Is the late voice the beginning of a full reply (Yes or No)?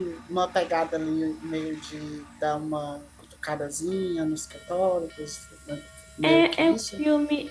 Yes